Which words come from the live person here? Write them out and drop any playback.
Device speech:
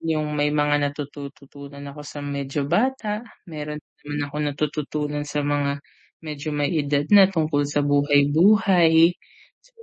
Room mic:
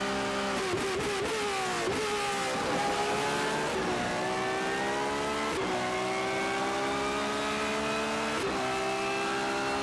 none

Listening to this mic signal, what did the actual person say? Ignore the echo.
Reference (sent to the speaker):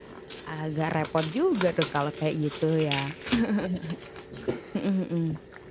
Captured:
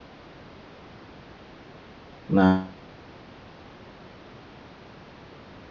nah

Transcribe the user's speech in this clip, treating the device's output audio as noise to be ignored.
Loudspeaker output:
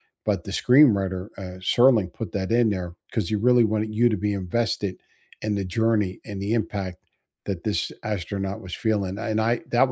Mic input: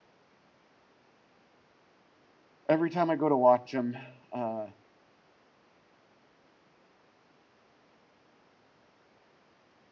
every time I go to watch 'em, uh,

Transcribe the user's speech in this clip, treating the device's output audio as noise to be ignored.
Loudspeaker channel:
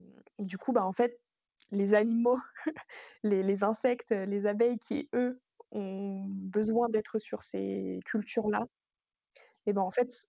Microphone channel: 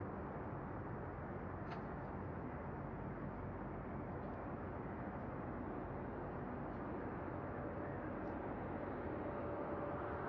none

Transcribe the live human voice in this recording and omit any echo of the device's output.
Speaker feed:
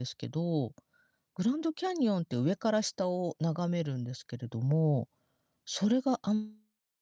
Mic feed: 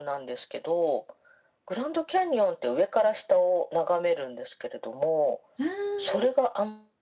ああ。

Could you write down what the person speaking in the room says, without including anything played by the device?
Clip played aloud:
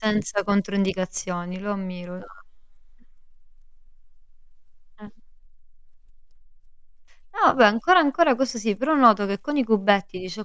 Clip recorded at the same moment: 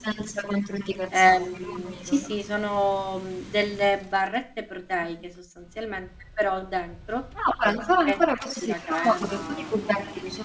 Ehm, sì, sì, sono, mhmm, delle barrette proteiche sostanzialmente, però dentro anziché esserci la crema, mhmm,

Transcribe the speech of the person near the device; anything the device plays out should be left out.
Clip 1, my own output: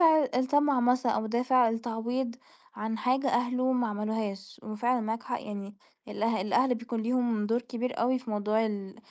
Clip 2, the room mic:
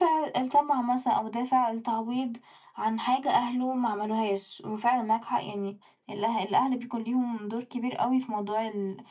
none

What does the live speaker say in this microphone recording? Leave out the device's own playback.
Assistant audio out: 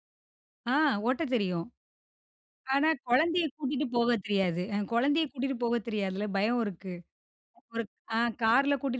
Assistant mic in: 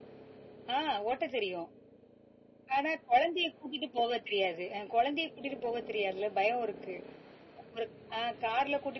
none

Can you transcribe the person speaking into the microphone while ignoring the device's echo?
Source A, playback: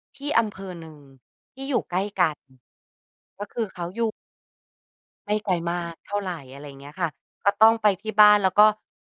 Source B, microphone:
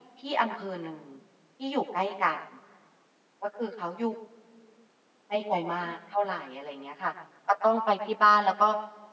none

